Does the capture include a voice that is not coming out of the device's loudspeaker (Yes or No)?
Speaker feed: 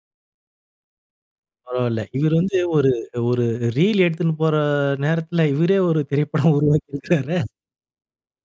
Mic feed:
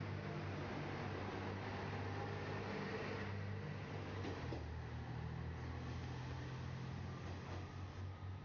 No